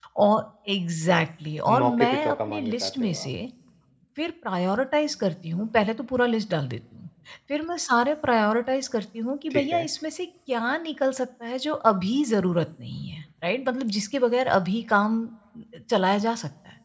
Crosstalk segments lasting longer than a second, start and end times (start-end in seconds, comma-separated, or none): 1.8-3.3